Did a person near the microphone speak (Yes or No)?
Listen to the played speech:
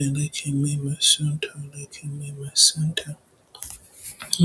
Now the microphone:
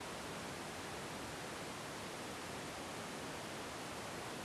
No